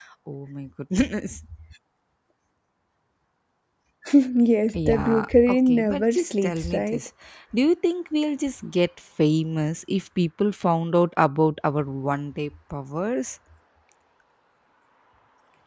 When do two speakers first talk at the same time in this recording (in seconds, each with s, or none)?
4.9 s